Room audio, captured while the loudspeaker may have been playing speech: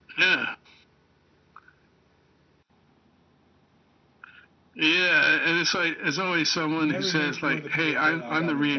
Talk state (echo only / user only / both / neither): both